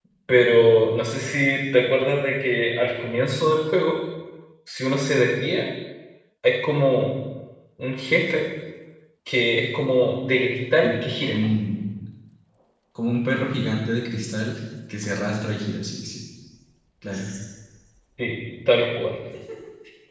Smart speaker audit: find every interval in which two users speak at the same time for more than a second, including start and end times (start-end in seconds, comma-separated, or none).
none